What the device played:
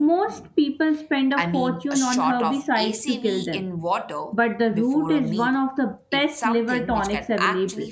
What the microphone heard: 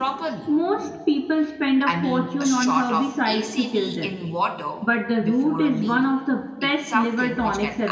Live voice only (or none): none